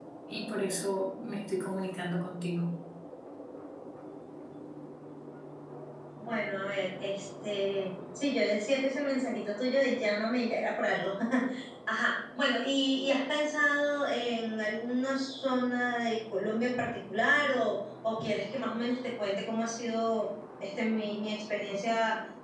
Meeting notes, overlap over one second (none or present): none